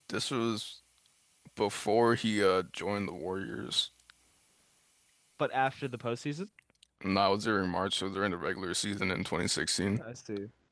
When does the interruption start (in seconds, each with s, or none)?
none